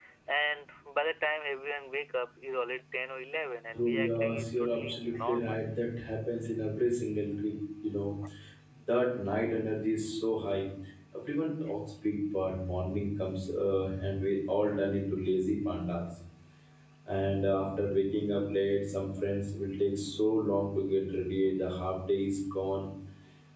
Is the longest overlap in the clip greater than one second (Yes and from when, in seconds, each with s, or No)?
Yes, from 3.7 s